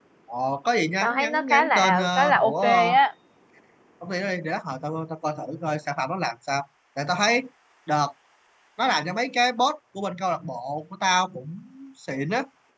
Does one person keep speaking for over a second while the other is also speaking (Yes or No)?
Yes